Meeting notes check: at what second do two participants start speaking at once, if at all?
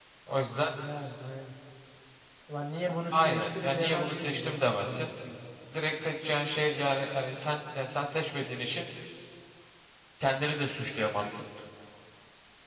3 s

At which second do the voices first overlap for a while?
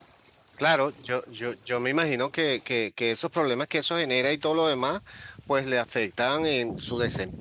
none

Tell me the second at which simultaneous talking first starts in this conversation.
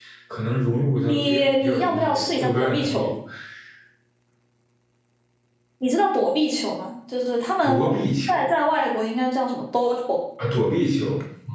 1 s

